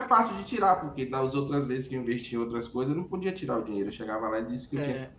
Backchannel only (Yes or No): Yes